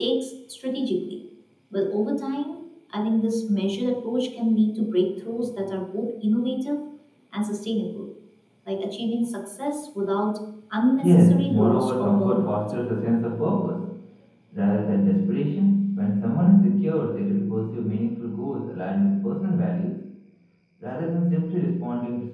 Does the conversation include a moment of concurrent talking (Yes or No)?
Yes